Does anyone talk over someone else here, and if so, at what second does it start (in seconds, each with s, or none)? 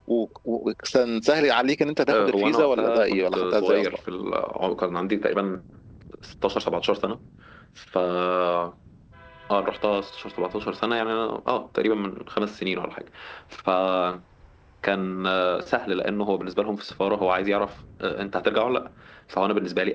2.1 s